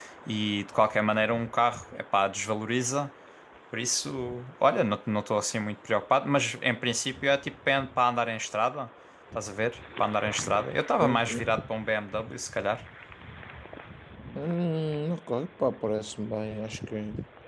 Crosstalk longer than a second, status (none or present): none